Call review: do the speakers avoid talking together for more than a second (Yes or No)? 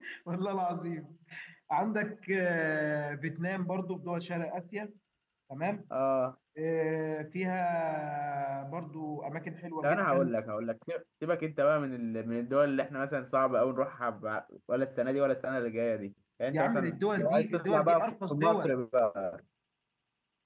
No